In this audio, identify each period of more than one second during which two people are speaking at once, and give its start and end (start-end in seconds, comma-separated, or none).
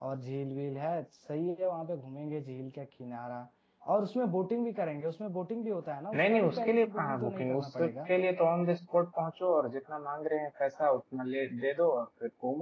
6.1-8.1